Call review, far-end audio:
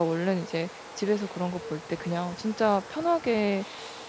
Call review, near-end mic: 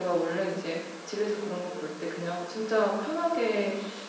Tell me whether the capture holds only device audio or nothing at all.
Yes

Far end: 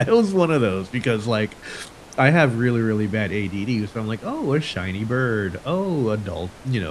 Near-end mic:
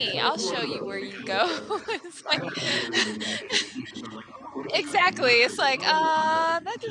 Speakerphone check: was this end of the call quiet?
No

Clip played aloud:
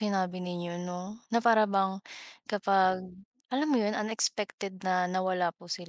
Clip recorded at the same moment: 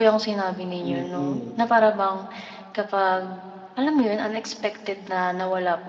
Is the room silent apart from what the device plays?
No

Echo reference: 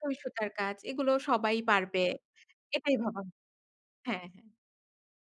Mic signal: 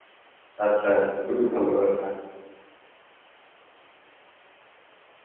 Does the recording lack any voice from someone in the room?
No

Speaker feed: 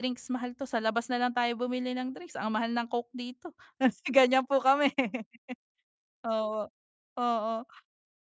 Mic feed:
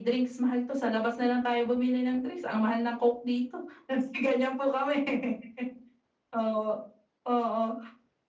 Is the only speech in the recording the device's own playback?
Yes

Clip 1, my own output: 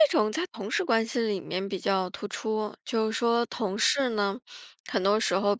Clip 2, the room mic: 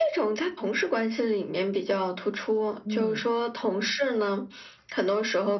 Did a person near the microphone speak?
Yes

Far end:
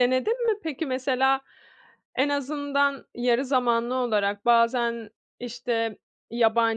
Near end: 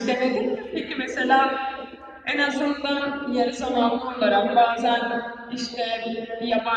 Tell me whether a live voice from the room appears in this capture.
No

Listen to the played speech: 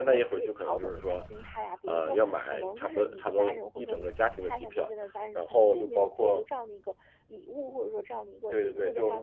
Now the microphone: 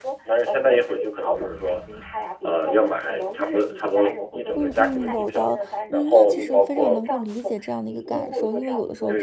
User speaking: Yes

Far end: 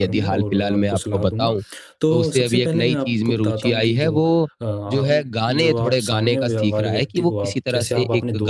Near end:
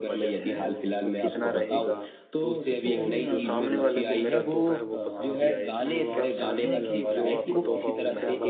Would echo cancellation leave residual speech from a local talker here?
Yes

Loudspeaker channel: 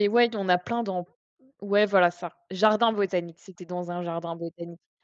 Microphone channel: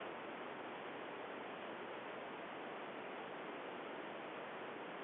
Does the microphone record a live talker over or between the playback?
No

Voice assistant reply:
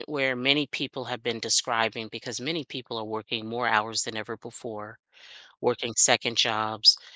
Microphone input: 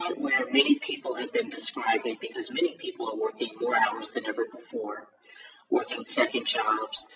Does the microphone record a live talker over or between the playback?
No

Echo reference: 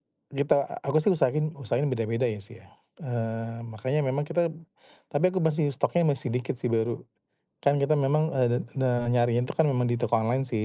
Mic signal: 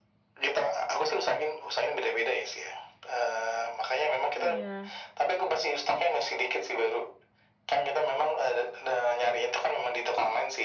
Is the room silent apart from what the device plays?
No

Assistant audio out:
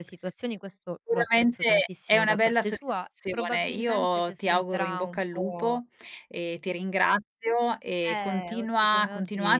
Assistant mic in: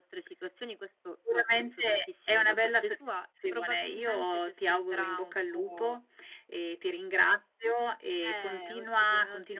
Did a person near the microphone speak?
No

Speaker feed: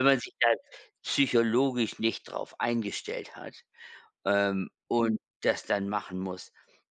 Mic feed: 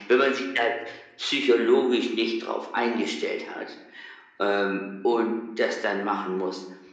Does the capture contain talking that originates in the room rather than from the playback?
Yes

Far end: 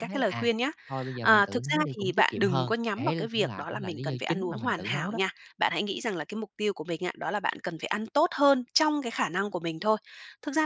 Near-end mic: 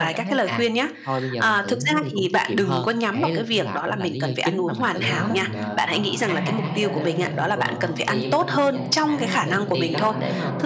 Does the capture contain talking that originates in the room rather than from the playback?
Yes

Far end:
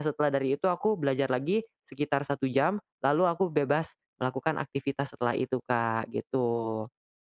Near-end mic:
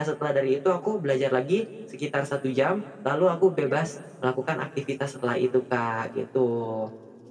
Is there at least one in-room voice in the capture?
Yes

